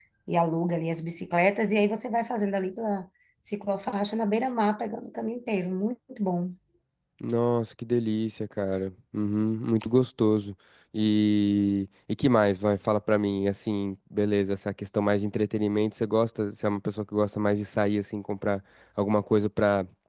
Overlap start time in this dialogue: none

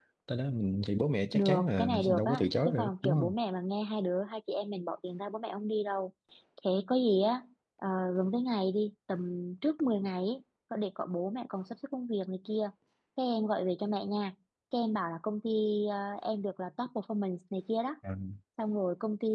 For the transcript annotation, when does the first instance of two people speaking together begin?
1.3 s

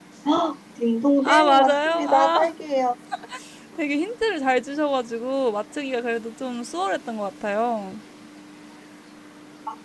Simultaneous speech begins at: 1.2 s

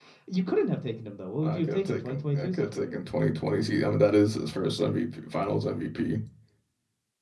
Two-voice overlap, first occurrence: 1.4 s

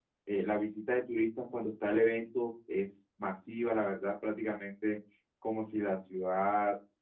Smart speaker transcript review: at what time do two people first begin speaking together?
none

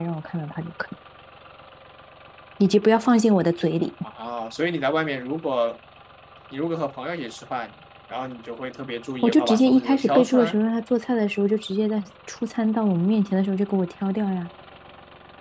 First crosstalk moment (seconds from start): 9.2 s

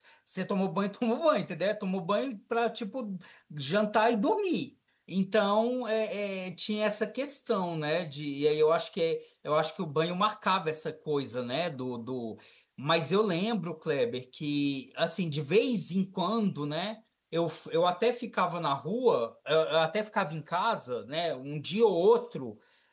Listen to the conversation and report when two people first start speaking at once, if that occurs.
none

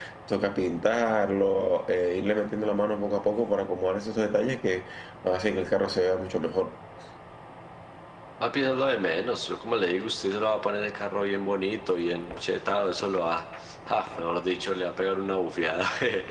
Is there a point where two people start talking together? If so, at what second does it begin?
none

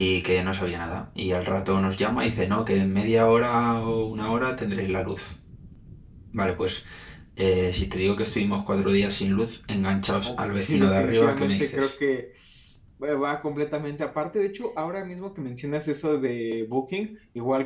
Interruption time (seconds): 10.2 s

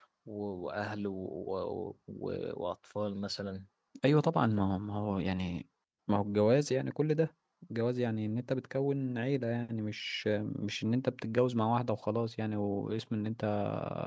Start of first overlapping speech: none

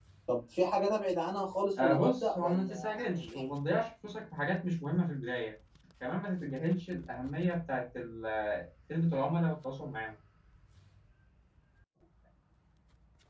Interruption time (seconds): 1.8 s

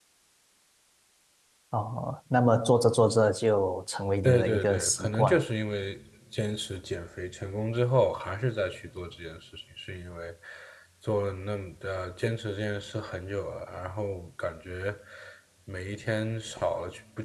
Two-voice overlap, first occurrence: 4.2 s

